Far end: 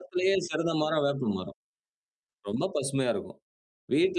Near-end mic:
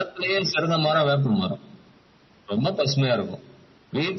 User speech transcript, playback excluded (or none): none